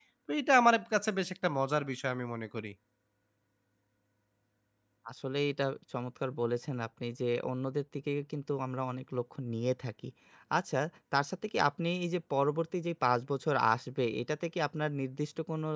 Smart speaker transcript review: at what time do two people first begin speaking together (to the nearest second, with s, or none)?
none